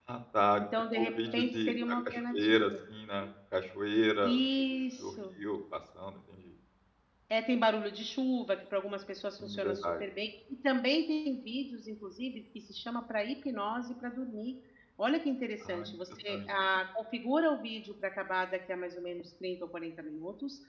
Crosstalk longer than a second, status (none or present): present